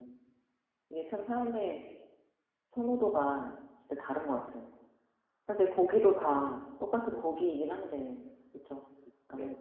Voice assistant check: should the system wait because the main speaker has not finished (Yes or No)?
No